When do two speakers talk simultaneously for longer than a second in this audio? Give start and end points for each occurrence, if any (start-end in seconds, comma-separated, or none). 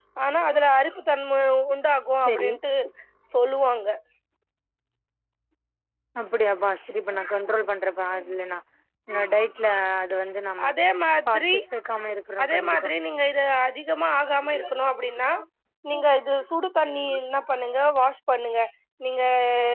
none